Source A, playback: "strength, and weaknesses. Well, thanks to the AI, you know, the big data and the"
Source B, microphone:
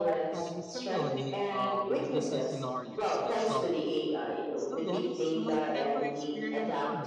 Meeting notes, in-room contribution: present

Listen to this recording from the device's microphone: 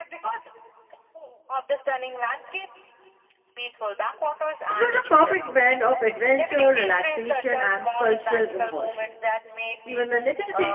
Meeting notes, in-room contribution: present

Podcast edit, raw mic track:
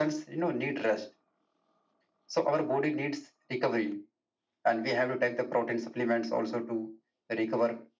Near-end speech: none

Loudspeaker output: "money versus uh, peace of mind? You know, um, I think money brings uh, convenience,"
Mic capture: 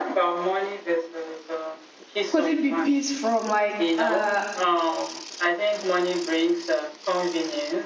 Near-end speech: present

